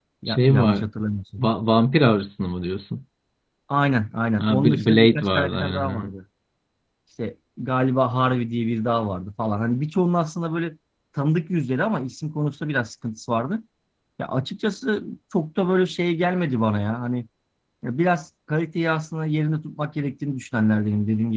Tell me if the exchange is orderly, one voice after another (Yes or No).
No